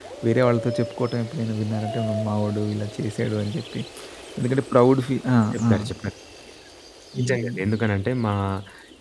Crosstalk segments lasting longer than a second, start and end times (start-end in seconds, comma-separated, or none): none